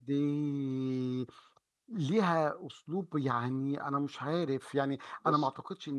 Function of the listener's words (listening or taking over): listening